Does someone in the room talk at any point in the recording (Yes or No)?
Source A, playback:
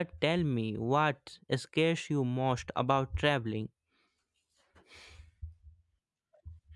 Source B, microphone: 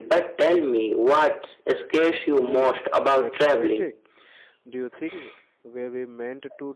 Yes